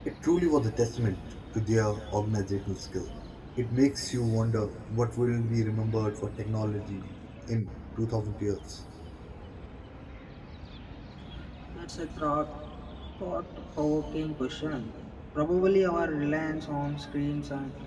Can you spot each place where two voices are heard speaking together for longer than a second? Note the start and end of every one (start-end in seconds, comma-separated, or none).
none